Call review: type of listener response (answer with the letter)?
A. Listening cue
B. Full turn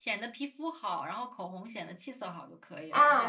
B